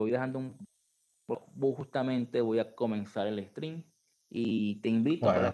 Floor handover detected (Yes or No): No